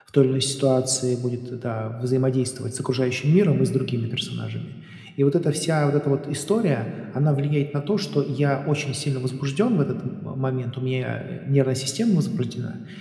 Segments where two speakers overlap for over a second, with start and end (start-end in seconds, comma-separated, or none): none